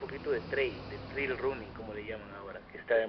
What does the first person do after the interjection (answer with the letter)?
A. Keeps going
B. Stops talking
B